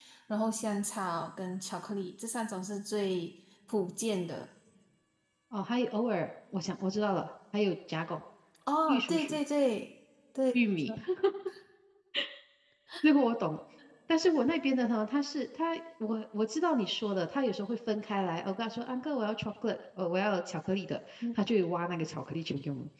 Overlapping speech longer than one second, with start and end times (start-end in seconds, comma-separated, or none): none